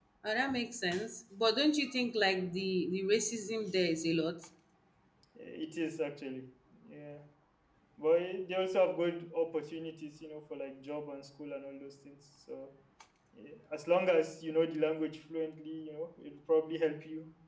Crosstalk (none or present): none